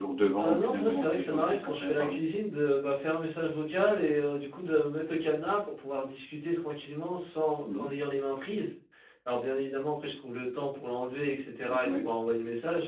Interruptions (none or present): present